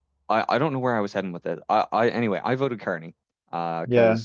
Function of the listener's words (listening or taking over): listening